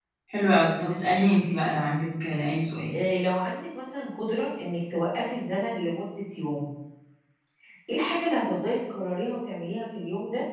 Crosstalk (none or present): none